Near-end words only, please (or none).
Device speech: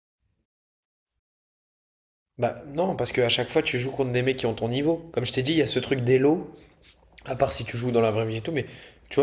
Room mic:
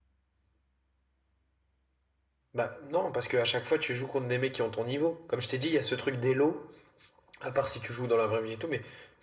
none